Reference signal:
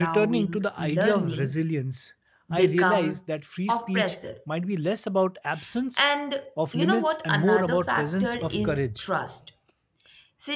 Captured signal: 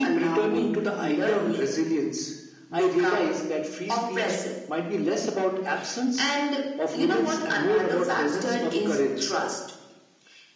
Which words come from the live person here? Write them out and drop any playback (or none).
none